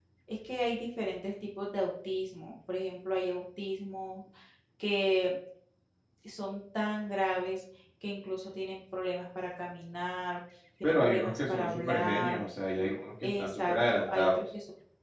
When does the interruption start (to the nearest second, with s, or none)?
11 s